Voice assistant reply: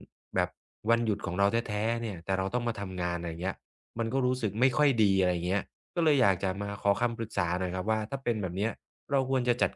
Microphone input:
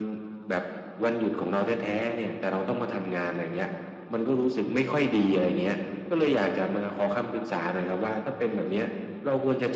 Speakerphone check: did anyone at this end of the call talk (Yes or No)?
No